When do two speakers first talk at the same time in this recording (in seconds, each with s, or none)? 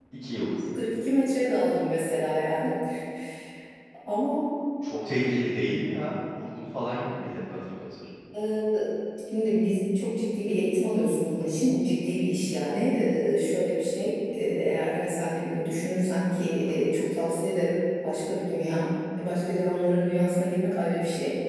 none